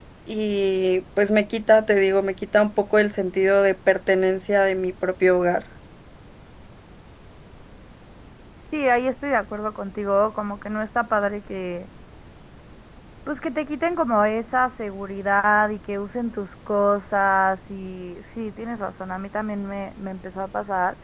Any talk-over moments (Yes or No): No